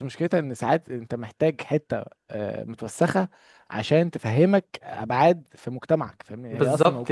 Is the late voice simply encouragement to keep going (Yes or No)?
No